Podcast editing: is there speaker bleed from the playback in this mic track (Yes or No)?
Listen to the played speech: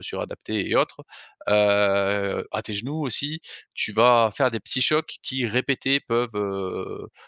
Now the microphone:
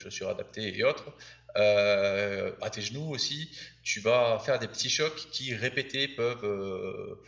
Yes